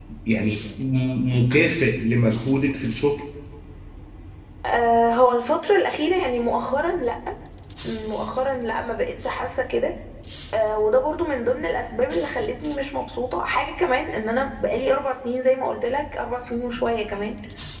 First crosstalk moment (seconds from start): none

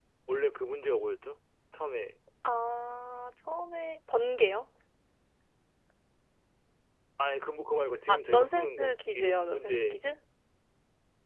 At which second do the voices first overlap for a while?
8 s

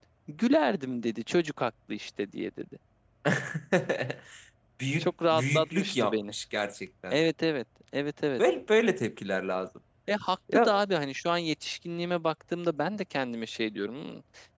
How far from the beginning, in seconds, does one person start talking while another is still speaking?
5 s

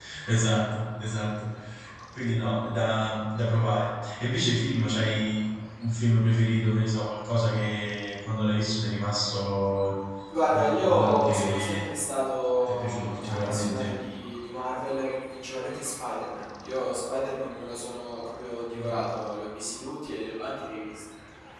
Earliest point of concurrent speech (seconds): 11 s

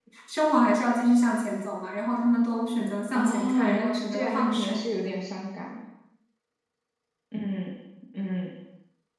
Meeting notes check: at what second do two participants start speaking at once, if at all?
3 s

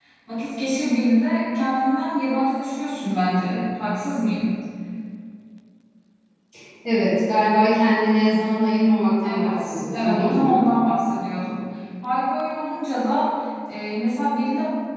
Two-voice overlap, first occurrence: 9 s

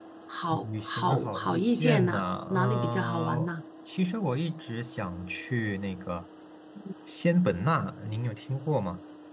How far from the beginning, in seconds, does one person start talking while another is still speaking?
1 s

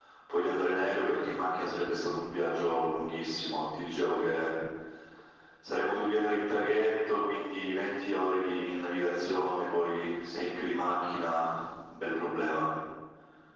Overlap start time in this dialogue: none

